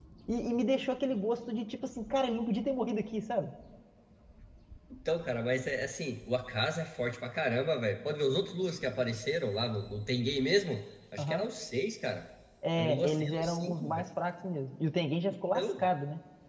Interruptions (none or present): present